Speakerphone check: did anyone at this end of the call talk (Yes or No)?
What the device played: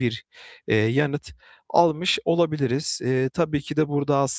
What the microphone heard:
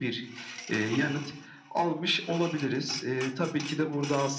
No